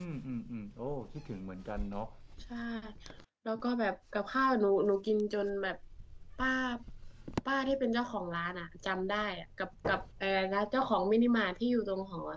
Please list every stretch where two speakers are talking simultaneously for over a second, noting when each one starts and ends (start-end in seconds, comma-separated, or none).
none